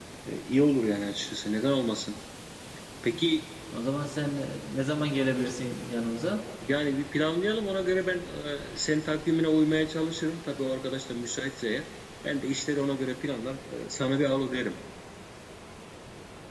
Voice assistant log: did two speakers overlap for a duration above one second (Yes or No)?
No